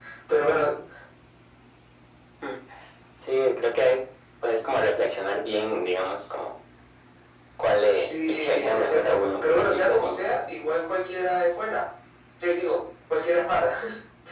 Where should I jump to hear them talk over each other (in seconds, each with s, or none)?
8.0 s